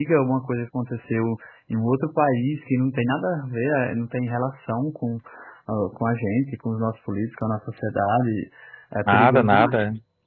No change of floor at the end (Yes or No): No